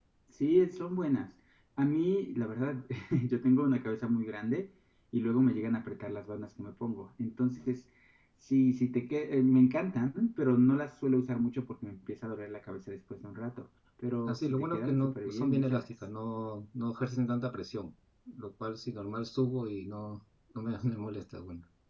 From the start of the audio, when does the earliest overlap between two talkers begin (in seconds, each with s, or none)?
14.3 s